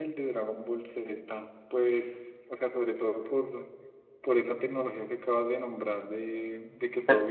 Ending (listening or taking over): listening